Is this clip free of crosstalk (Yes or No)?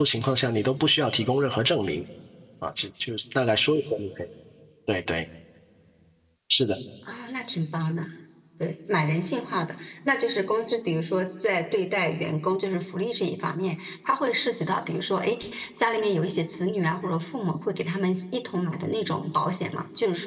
Yes